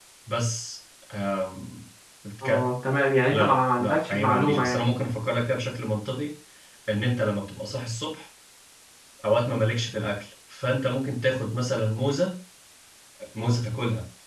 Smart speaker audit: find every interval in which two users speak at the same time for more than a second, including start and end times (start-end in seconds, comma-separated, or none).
3.3-4.9